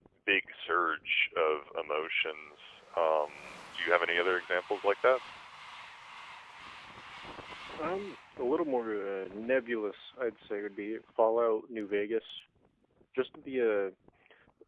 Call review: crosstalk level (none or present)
none